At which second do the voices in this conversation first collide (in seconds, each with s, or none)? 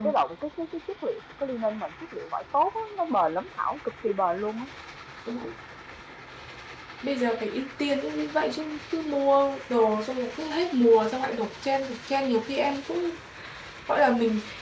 none